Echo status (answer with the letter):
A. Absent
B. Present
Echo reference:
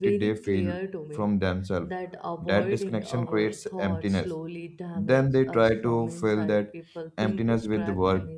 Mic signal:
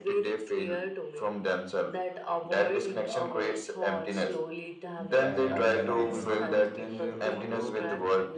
B